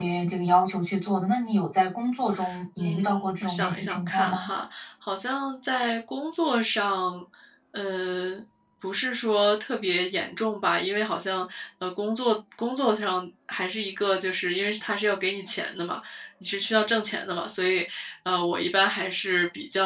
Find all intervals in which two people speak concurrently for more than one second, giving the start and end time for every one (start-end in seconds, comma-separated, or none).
2.8-4.5